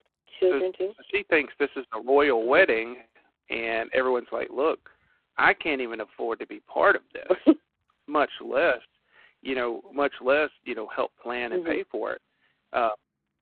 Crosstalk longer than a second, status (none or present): none